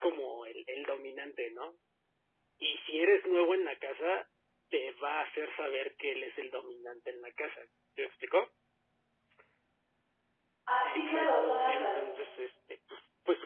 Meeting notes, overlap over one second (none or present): present